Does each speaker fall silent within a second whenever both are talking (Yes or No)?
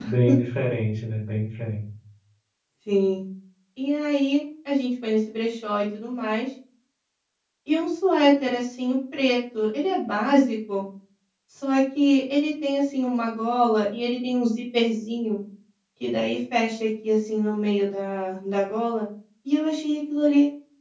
Yes